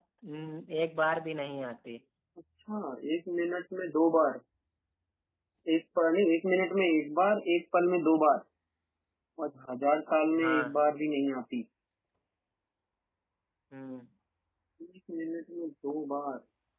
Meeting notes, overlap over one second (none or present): none